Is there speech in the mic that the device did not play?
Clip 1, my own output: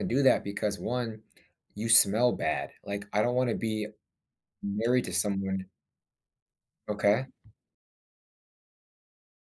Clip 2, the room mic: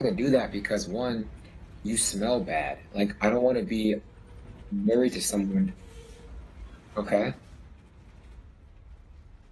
No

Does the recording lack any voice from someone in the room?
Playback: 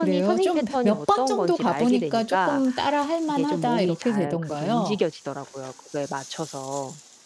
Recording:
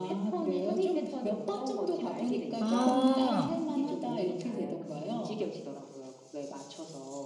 No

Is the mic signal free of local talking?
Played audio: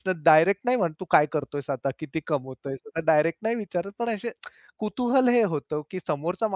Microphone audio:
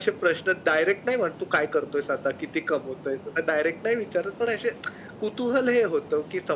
Yes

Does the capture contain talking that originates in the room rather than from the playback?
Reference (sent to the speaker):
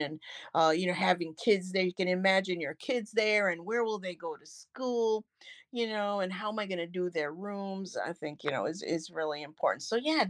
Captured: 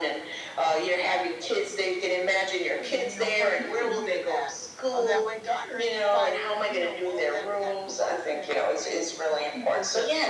Yes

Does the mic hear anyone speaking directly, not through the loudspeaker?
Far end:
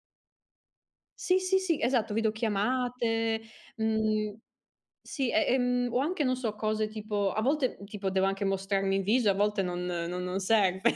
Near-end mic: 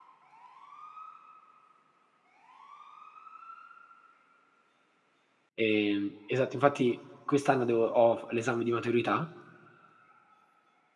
Yes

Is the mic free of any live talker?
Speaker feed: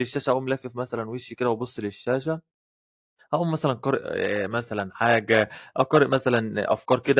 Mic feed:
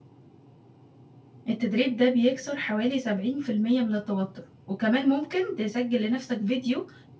No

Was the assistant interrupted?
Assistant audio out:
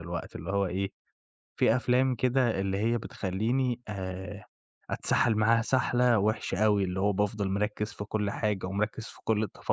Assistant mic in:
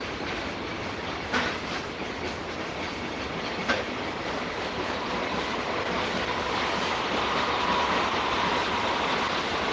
No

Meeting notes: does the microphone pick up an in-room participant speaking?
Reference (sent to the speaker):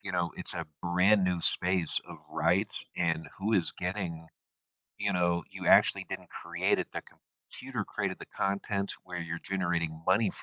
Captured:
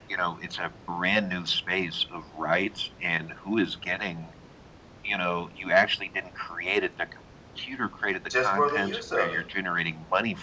Yes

